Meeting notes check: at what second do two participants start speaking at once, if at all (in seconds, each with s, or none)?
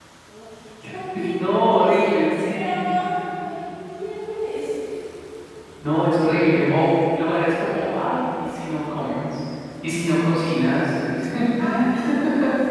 1.2 s